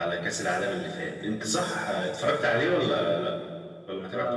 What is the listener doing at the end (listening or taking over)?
taking over